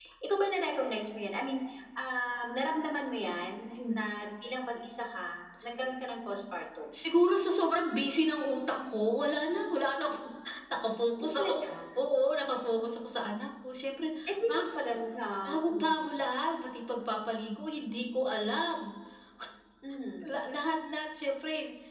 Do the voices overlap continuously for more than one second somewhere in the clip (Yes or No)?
No